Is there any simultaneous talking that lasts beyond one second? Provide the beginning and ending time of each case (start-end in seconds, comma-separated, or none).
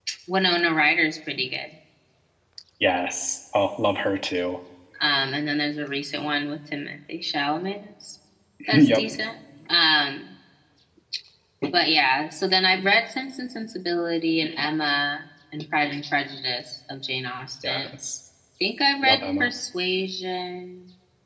none